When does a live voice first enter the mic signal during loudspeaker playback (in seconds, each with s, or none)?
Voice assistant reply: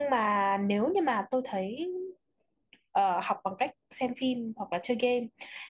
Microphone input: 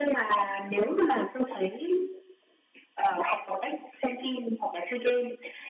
none